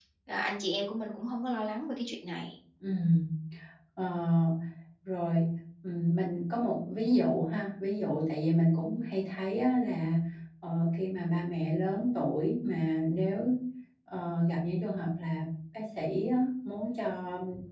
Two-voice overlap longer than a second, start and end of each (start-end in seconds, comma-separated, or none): none